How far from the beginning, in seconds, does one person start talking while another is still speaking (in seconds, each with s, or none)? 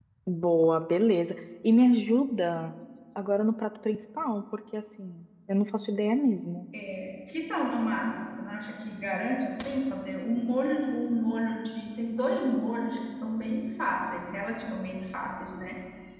none